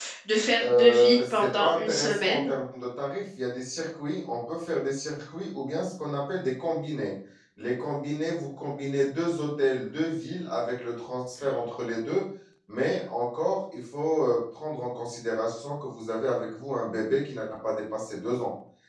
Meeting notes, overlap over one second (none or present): present